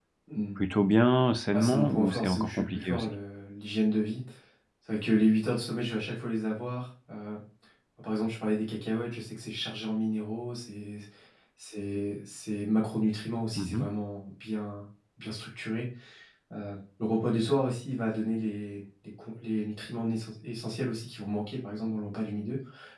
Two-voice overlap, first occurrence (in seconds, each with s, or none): 1.5 s